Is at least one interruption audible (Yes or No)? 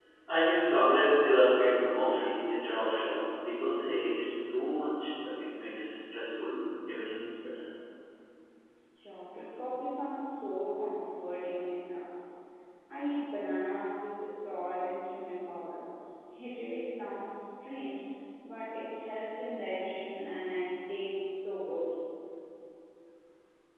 No